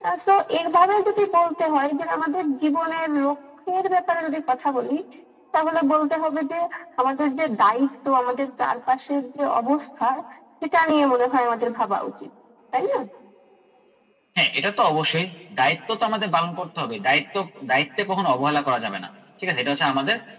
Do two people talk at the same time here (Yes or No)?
No